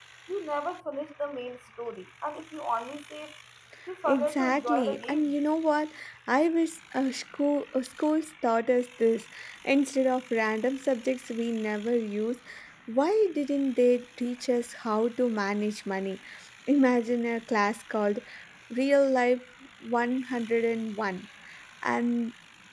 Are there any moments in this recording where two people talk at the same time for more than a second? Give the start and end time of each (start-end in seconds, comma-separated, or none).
4.0-5.3